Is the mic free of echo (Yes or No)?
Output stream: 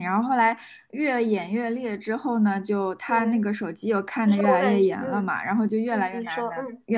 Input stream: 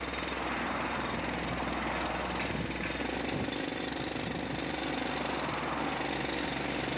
Yes